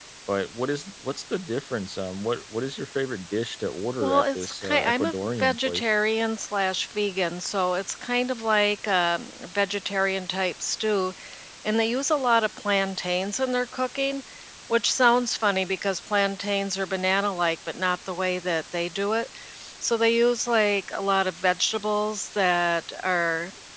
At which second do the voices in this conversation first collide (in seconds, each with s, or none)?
4.0 s